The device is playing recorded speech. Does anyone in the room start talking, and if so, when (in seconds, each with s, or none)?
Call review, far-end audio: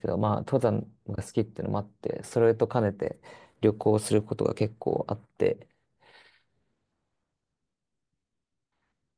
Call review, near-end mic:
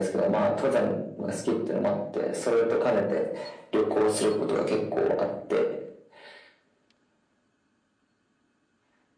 none